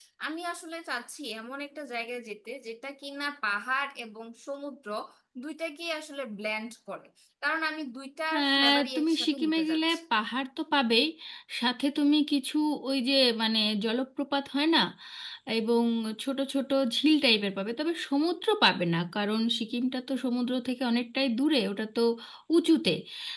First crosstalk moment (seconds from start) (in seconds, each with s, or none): 8.3 s